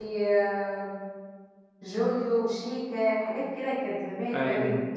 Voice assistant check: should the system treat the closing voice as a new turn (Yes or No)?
No